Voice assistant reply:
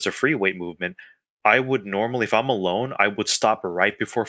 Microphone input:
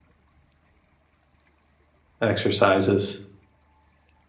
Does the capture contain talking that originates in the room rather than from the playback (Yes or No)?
Yes